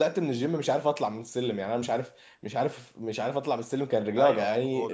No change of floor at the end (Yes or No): No